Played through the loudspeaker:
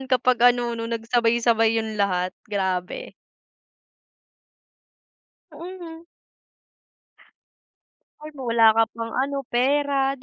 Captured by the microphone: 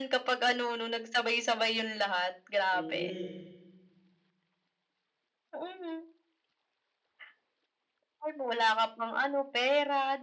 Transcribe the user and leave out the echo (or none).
mm,